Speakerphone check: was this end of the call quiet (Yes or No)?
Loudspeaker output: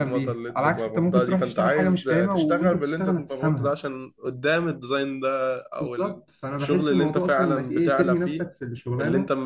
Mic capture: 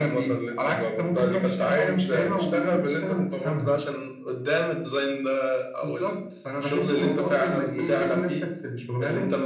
Yes